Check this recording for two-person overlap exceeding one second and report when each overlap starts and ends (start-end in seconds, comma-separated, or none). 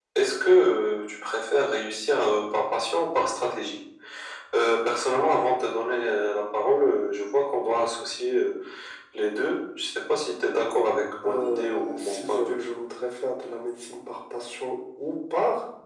11.2-12.6